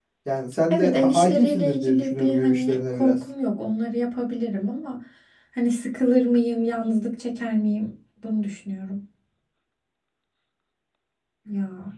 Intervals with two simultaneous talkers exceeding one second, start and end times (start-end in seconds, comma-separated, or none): 0.7-3.2